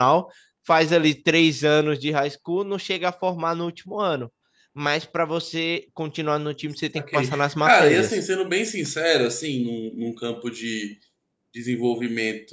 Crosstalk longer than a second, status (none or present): present